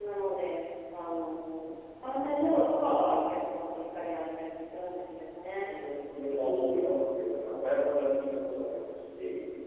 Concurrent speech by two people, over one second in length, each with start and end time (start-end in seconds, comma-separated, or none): none